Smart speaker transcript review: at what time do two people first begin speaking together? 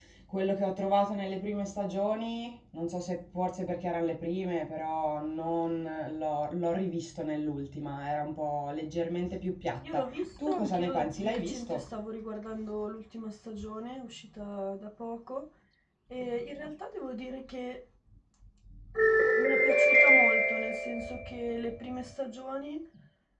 10 s

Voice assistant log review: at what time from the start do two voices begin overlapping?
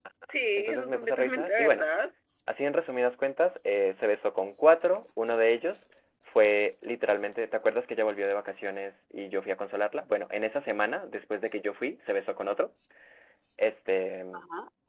1 s

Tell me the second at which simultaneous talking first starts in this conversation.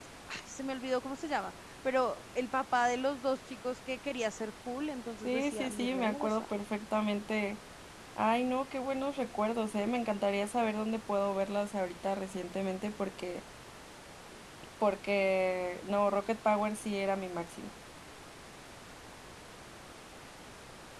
5 s

